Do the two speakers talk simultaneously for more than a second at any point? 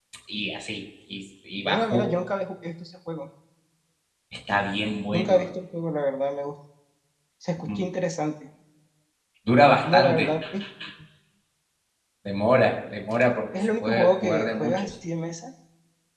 Yes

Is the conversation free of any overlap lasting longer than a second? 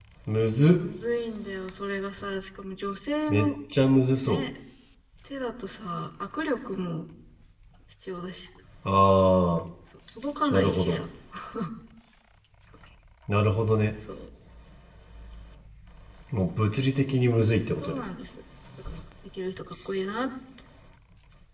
Yes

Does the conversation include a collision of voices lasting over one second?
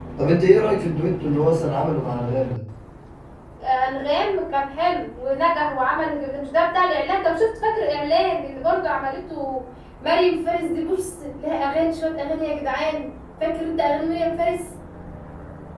No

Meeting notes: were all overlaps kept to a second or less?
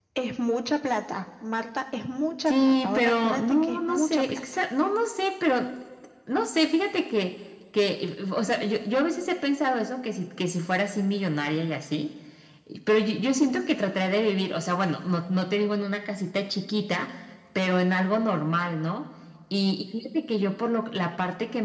No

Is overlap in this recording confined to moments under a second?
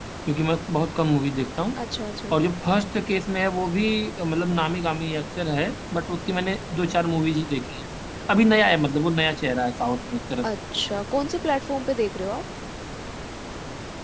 Yes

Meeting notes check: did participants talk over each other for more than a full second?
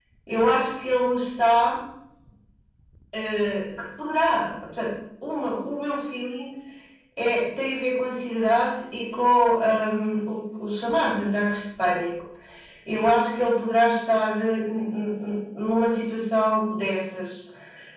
No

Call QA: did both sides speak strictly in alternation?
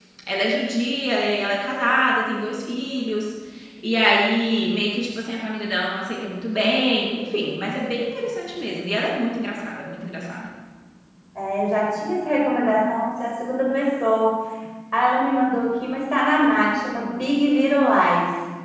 Yes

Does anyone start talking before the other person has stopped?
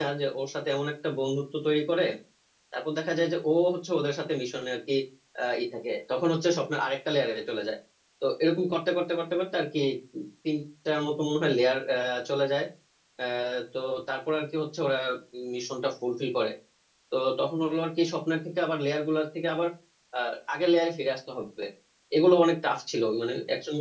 No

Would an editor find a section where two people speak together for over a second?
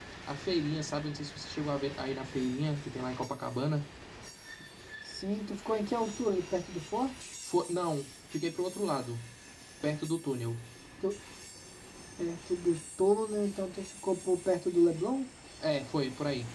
No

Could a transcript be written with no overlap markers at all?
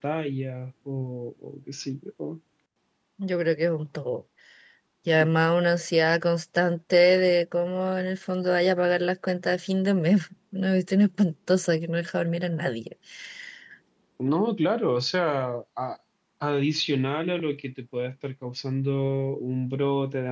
Yes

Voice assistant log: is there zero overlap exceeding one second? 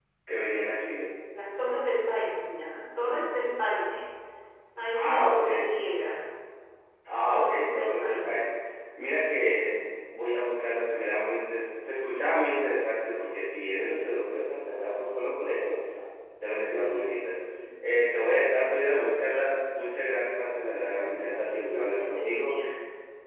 No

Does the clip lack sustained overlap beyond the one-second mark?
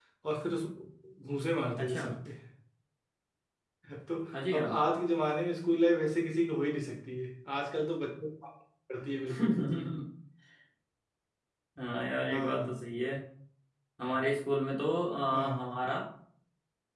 Yes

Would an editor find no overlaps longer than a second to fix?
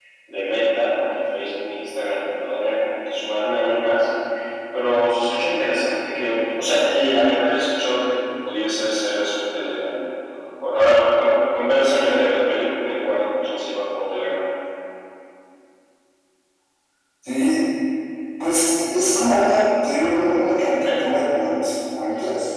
Yes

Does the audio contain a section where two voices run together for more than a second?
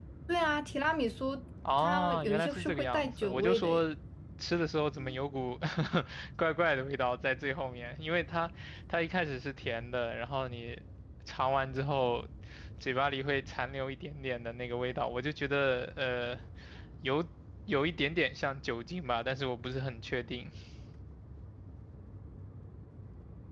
Yes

